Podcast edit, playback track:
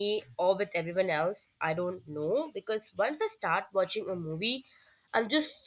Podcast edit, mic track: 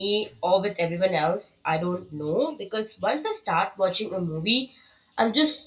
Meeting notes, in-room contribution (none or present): none